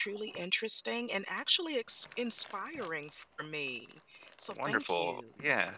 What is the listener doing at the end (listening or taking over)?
taking over